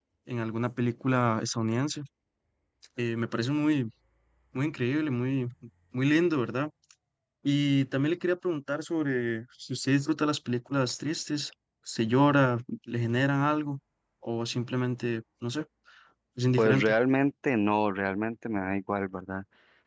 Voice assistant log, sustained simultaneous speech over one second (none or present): none